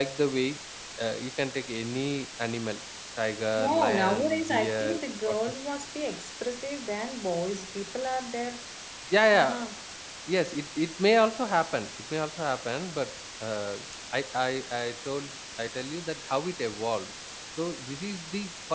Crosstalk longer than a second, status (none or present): present